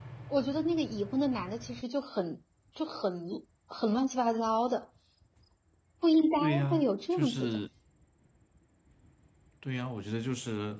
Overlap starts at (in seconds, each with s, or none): 6.4 s